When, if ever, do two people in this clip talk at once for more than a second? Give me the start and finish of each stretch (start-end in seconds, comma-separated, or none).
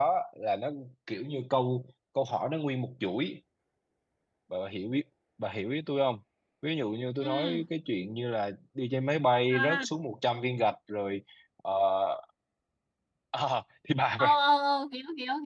none